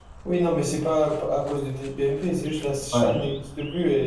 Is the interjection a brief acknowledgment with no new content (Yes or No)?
Yes